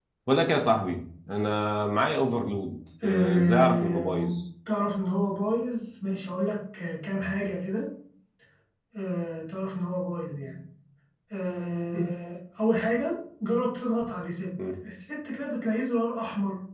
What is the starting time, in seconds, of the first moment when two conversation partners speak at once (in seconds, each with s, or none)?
3.0 s